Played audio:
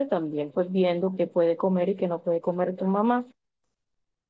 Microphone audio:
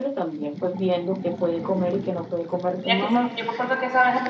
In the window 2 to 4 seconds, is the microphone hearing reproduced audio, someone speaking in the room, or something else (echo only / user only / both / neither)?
both